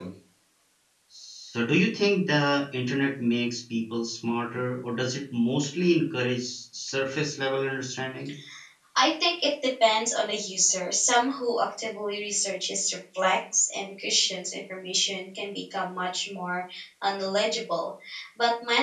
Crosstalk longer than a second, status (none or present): none